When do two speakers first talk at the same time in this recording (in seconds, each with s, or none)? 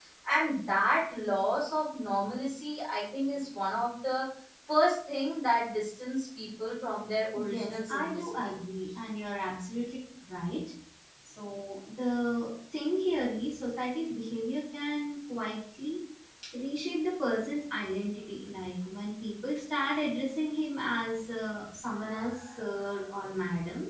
7.3 s